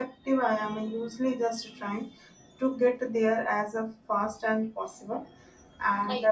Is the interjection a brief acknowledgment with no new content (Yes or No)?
Yes